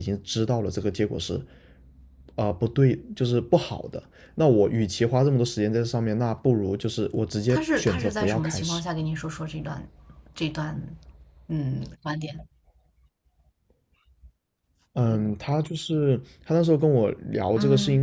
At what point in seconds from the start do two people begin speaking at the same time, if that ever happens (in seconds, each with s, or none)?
7.5 s